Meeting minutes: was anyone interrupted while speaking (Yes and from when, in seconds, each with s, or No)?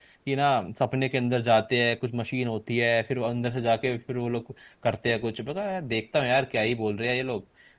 No